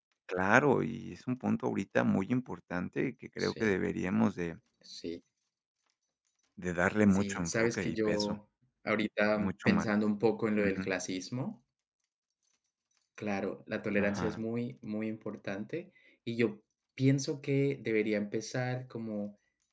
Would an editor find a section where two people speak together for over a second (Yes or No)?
Yes